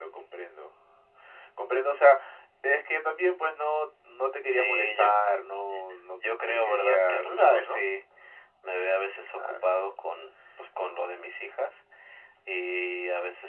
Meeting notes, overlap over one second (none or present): present